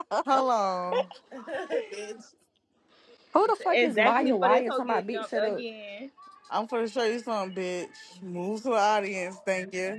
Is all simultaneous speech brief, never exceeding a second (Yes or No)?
No